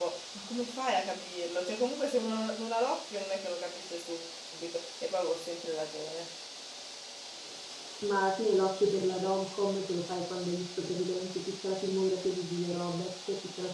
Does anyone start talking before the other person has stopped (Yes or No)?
No